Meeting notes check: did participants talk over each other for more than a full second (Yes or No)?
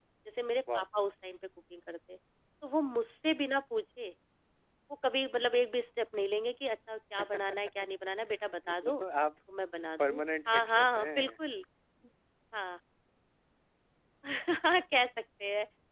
Yes